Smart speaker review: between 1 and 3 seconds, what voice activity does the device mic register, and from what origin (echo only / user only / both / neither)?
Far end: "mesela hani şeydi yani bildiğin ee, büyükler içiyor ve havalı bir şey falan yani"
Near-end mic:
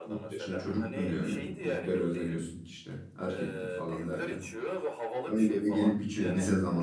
both